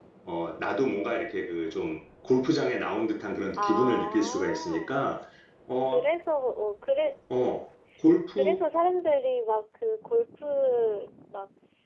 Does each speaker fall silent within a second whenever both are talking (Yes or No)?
No